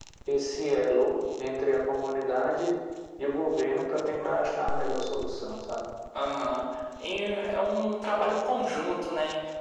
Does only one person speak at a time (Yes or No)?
Yes